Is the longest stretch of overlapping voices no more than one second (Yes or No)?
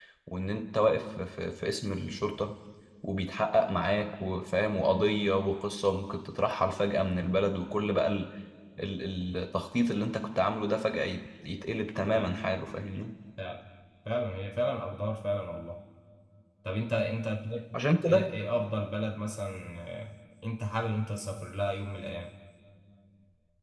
Yes